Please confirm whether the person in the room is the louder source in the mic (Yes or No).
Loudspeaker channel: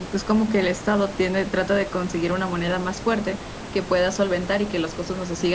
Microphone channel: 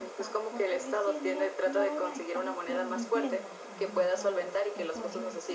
No